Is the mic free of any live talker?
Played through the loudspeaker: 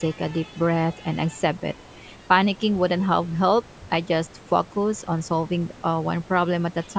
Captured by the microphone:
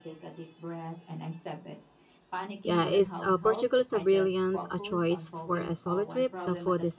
No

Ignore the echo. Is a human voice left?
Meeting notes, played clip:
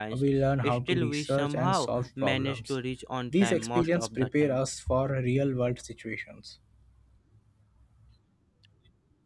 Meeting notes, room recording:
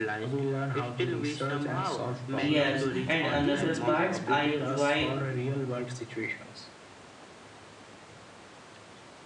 Yes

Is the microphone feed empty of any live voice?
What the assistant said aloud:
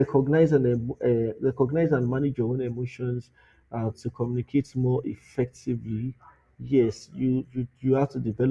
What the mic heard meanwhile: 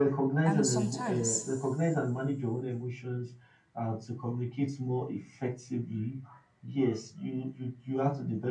No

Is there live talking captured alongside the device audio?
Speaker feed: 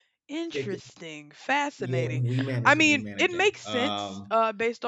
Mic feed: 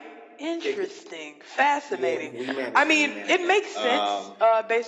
No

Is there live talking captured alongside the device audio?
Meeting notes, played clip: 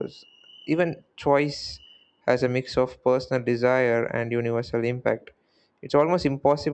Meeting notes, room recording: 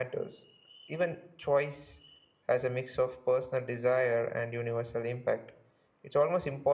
No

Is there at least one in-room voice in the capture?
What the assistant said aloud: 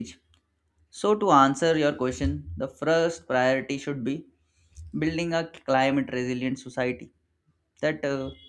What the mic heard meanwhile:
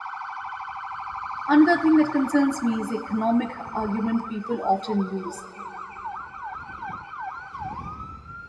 Yes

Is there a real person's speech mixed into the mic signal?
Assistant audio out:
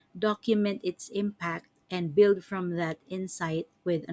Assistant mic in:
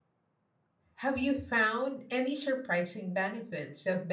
Yes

